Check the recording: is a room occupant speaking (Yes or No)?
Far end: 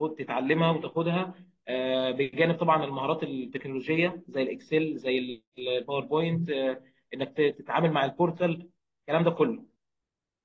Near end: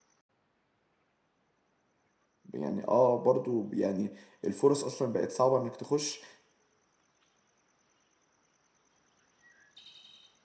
Yes